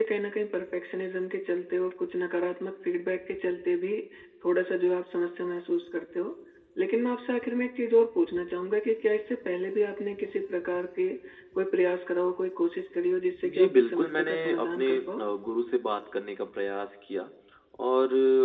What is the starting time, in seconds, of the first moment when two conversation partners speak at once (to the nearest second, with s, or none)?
13 s